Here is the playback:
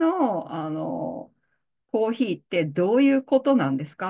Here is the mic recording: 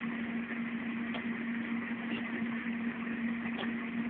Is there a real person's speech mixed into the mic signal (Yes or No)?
No